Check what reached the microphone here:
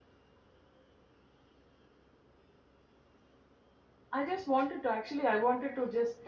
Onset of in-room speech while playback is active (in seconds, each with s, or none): 4.1 s